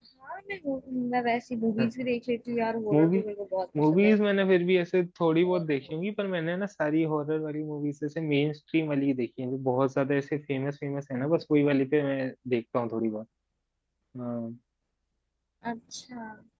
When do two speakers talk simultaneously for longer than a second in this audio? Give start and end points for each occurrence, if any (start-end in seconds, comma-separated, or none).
none